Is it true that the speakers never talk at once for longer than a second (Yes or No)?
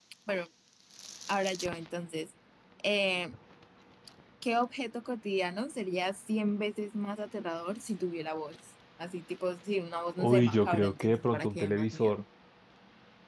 No